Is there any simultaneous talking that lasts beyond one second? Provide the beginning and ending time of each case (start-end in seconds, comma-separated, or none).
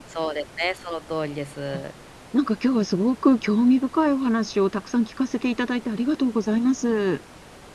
none